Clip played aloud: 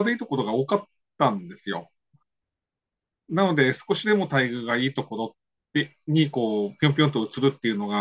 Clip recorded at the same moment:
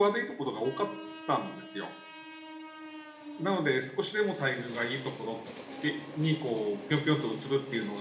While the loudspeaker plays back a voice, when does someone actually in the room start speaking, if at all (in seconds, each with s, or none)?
none